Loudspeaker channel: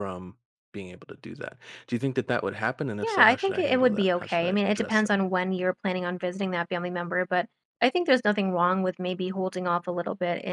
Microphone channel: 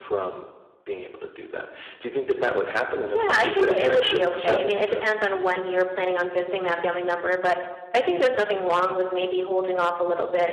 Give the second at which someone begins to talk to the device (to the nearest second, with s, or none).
3 s